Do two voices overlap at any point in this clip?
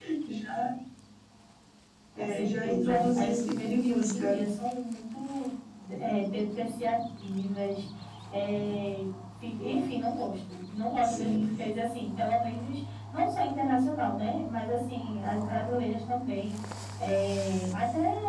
Yes, from 2.2 s

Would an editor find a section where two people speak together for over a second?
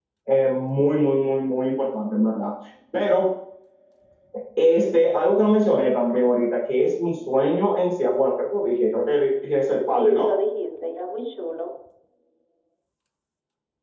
No

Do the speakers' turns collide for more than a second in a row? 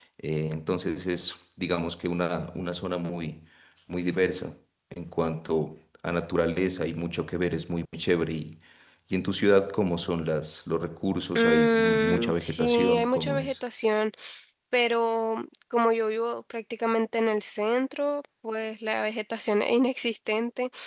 Yes, from 11.4 s

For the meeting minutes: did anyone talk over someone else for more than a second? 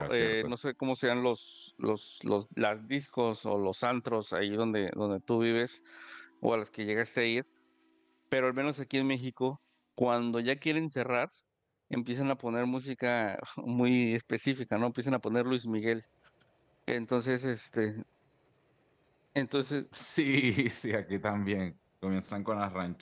No

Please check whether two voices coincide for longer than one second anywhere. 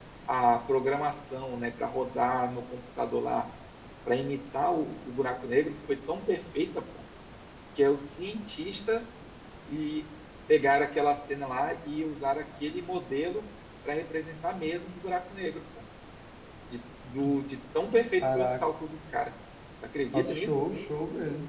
No

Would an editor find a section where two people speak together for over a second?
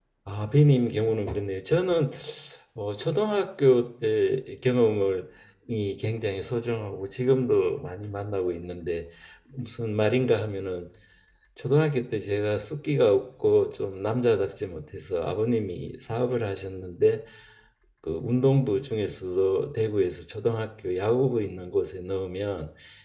No

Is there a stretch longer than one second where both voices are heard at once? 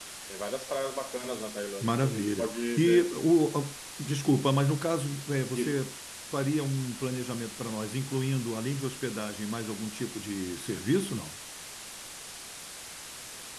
Yes, from 1.8 s

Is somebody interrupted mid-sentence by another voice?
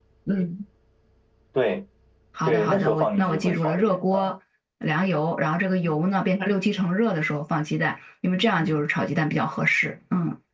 Yes, from 2.4 s

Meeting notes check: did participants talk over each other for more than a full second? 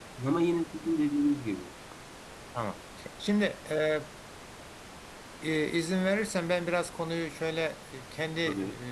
No

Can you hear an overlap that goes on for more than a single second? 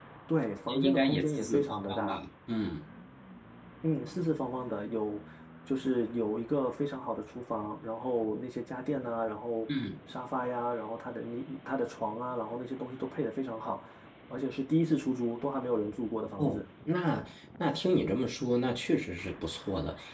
Yes, from 0.7 s

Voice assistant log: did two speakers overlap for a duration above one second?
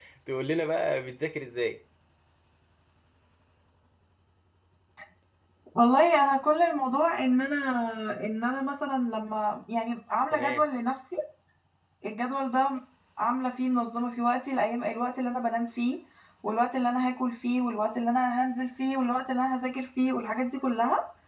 No

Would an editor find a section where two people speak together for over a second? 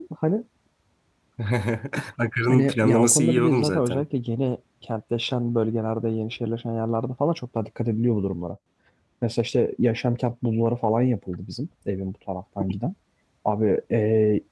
Yes, from 2.5 s

